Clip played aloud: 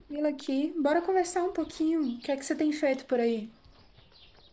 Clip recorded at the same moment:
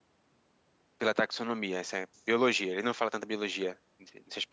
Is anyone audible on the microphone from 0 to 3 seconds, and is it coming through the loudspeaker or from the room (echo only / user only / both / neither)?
user only